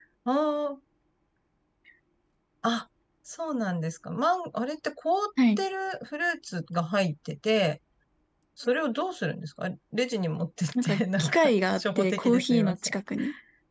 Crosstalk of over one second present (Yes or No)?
Yes